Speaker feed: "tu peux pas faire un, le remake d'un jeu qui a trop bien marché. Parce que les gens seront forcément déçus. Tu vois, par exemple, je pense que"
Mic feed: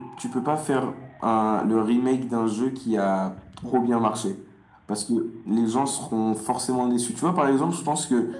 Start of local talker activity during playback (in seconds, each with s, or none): none